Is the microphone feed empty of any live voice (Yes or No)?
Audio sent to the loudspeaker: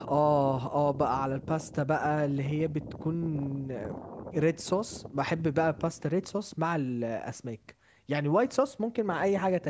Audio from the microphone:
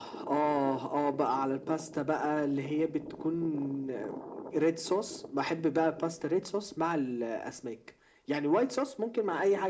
Yes